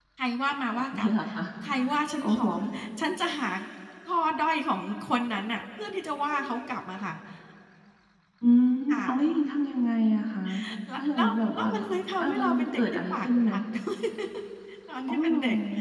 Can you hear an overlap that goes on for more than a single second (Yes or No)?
Yes